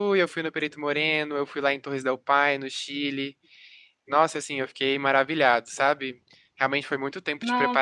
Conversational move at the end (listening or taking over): listening